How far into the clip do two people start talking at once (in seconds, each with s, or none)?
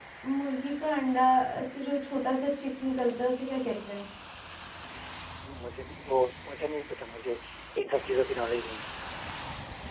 none